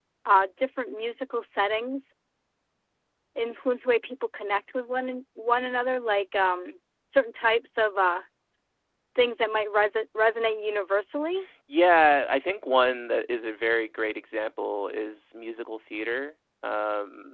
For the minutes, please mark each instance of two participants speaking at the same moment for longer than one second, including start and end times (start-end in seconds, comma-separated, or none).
none